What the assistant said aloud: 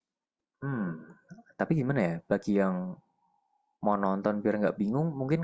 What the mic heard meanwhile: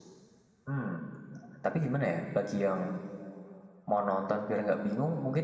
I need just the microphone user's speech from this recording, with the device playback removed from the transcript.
none

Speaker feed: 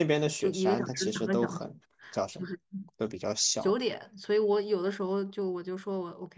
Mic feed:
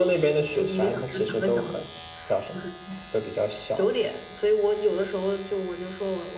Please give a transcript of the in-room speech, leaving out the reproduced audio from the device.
none

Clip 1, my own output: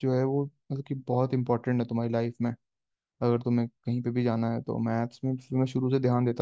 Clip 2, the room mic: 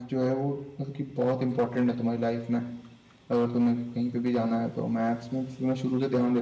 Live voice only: none

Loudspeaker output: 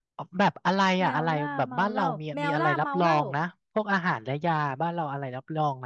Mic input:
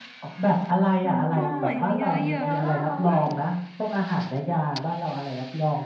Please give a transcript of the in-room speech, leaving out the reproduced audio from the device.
เพอหอยมีออย

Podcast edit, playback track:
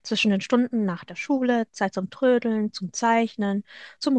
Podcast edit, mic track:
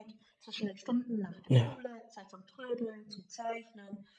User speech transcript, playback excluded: Ja.

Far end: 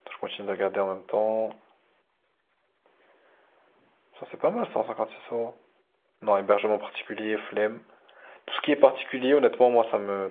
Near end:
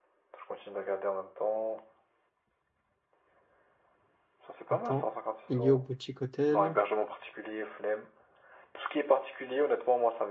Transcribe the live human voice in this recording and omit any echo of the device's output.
Attends. Ilio Boutique Hôtel.

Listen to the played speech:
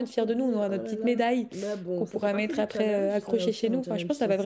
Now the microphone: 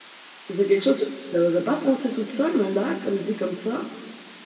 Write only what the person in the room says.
Ça, C'est quelque chose que je n'aurais pas pensé toute seule, mais là, comme dit comme ça,

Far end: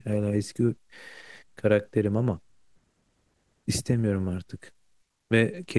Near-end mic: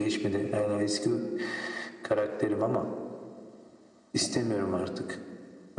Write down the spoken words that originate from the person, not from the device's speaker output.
none

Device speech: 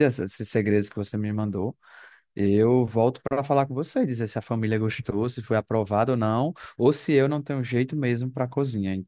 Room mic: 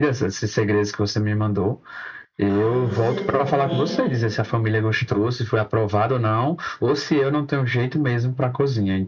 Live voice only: Aí você põe,

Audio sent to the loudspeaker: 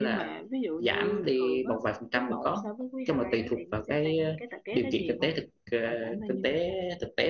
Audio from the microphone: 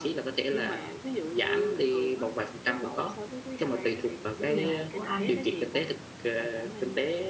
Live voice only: của tôi là hàng của Anh

